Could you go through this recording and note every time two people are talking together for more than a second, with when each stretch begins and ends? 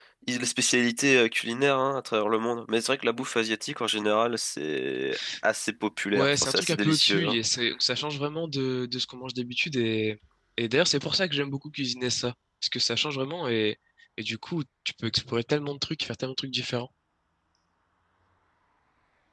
6.1-7.4

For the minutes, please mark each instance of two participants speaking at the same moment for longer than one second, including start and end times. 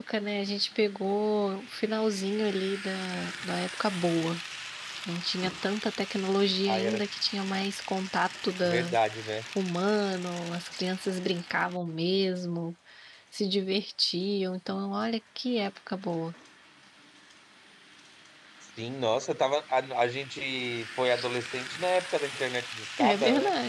none

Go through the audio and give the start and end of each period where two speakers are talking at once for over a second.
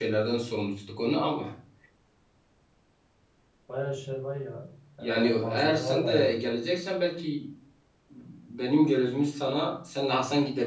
5.0-6.3

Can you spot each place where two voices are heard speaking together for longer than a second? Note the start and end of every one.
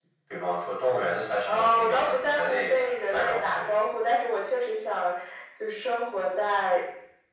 1.4-3.6

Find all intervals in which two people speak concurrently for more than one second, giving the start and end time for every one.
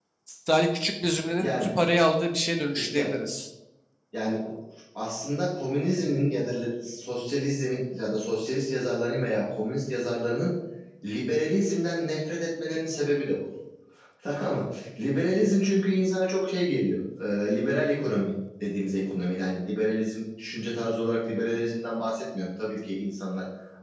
none

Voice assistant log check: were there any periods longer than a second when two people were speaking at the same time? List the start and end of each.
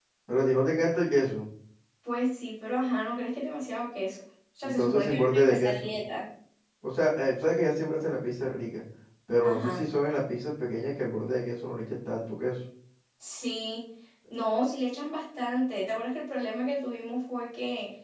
4.6-5.9

